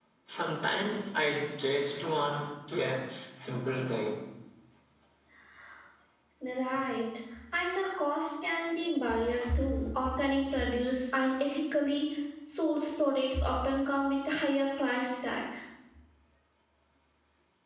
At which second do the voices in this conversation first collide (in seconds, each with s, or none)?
none